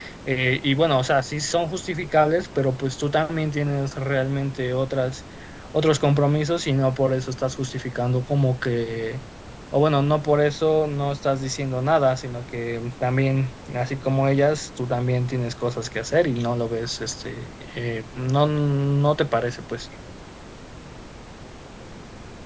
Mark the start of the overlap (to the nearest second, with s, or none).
none